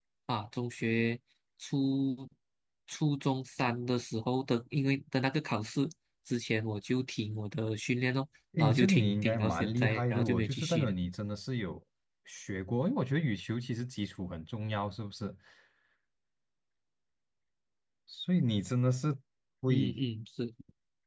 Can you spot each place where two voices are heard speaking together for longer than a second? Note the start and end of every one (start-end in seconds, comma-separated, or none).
8.6-10.9